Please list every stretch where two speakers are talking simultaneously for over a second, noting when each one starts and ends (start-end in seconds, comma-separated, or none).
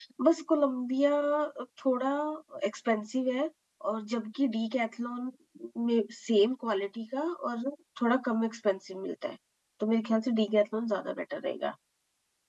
none